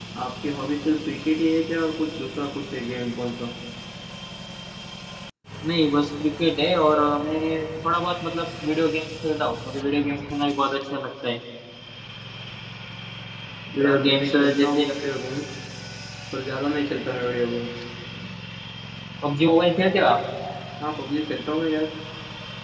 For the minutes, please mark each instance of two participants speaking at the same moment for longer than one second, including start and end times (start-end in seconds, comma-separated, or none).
13.8-15.1